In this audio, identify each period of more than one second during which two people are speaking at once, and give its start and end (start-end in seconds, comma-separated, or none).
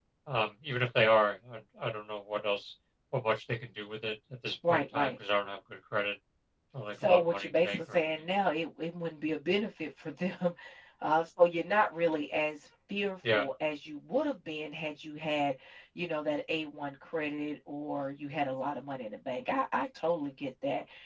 6.9-8.3